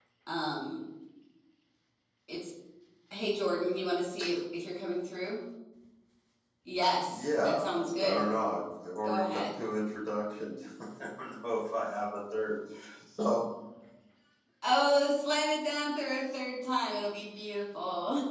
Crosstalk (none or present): present